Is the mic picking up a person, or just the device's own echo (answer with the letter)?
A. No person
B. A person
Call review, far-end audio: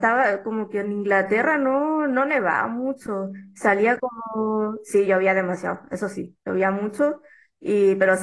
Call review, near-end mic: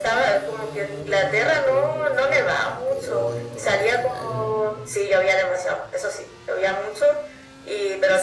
B